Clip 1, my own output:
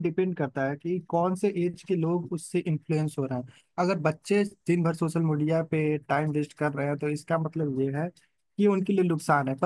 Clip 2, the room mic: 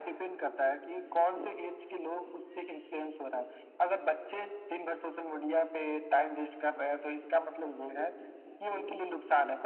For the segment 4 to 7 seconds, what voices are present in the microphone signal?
echo only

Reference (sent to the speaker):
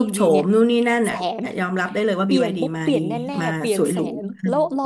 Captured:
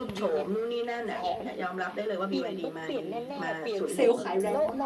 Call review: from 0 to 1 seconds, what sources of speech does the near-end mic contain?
echo only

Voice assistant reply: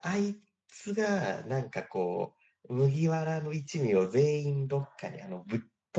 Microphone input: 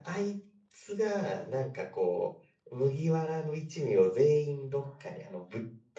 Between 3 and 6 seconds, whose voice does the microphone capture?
echo only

